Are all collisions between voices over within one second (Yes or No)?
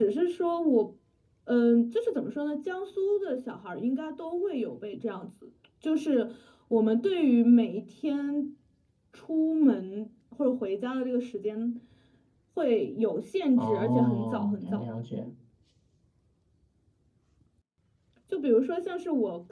No